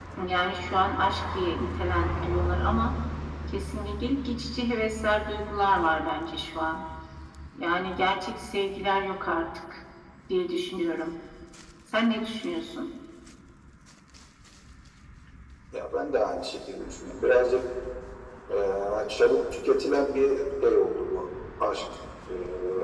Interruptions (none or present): none